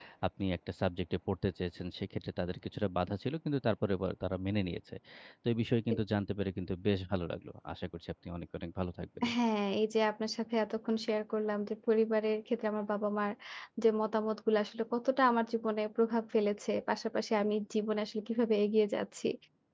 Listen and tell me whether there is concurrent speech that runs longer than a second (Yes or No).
No